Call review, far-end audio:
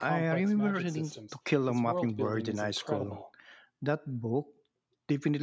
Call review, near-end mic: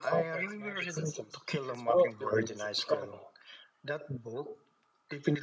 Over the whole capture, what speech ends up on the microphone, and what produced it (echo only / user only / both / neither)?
echo only